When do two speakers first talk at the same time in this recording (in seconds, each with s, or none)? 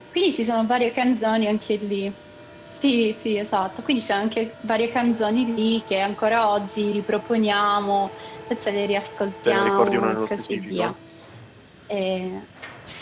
9.4 s